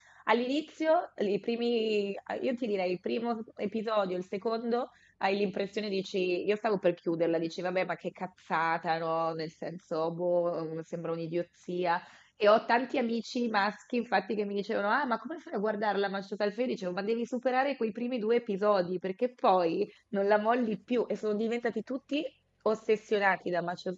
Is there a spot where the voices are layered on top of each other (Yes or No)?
No